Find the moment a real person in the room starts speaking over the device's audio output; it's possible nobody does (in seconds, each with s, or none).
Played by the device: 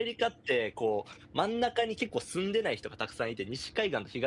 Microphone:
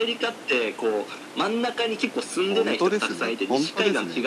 2.5 s